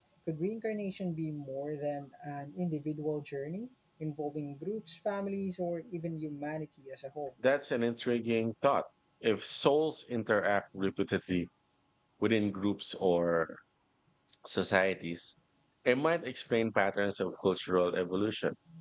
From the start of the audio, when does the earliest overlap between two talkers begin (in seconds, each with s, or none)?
none